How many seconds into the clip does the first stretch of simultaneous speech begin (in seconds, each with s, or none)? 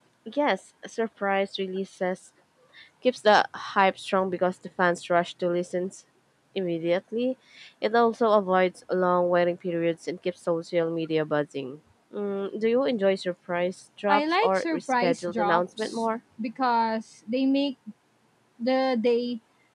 14.1 s